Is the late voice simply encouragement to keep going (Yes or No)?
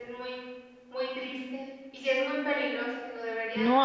No